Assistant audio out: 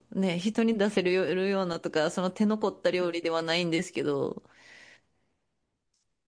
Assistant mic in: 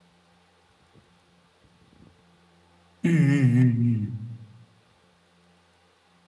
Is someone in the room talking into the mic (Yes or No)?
Yes